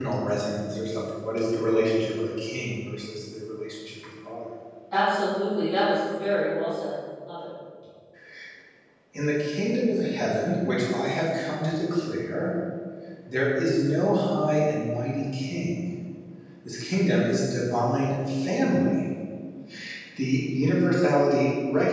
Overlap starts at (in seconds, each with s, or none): none